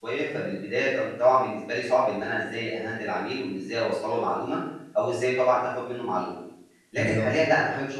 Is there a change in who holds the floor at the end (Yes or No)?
No